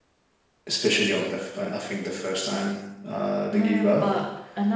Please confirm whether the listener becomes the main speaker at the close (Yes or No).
Yes